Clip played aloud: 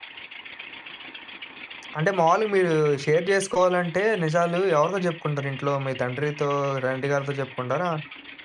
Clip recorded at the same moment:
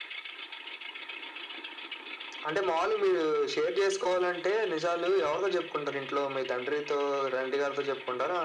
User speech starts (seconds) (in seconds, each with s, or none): none